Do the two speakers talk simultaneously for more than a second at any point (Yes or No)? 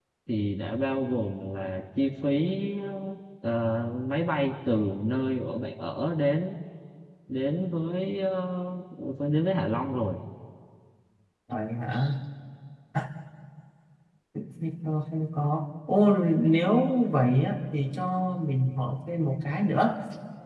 No